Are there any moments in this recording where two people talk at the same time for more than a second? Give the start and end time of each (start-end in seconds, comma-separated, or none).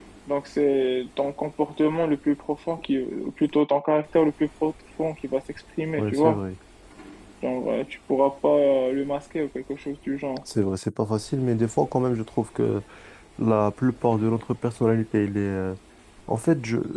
none